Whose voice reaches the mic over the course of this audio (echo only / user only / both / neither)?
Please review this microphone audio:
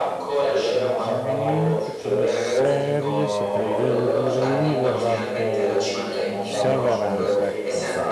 both